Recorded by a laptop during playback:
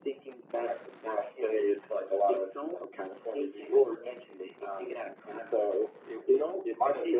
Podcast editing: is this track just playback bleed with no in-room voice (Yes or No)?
Yes